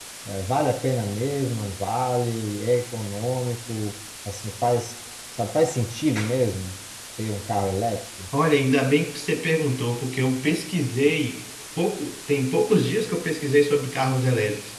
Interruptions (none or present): none